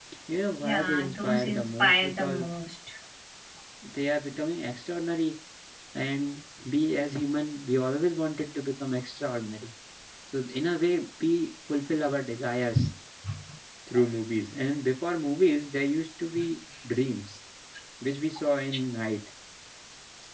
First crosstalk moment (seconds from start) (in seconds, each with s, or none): 0.6 s